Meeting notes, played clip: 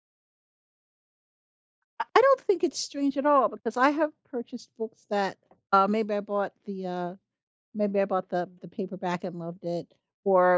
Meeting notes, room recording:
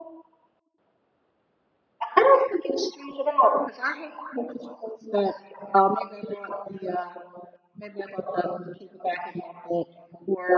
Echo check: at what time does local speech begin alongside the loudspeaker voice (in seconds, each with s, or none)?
none